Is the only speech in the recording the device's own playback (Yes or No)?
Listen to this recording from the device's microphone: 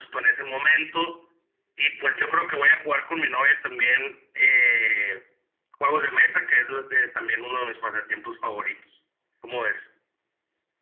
Yes